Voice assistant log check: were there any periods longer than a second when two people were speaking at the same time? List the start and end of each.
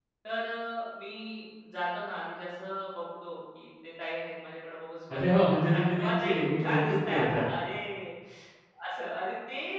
5.1-7.4

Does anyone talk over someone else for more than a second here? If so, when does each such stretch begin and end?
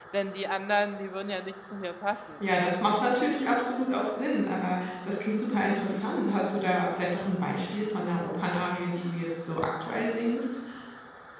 none

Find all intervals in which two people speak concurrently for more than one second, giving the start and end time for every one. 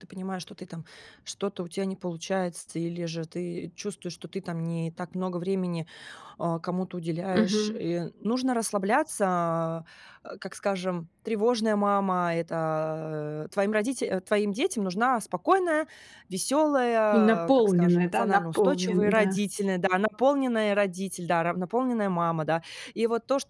17.1-19.4

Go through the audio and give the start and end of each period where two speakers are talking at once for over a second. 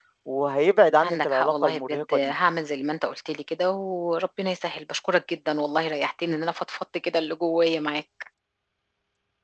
1.0-2.3

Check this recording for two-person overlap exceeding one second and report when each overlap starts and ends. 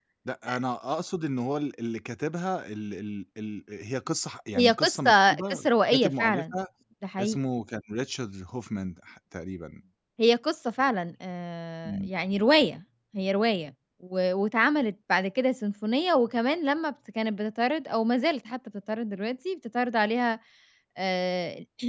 4.6-6.5

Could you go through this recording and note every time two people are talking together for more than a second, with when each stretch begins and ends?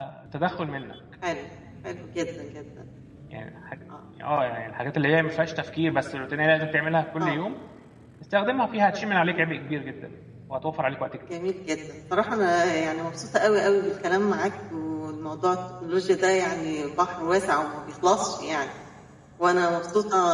none

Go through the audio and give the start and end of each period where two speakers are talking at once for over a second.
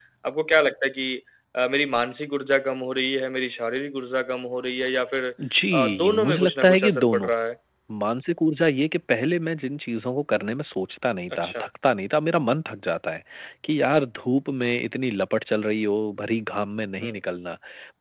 5.7-7.3

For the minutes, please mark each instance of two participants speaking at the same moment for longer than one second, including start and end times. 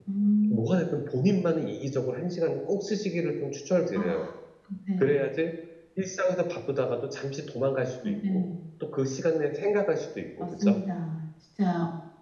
none

